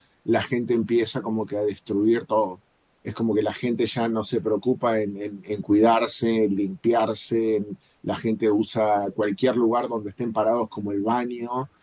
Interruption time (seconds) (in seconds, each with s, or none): none